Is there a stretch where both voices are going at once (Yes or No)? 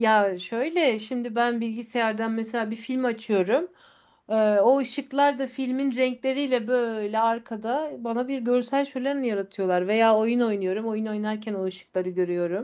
No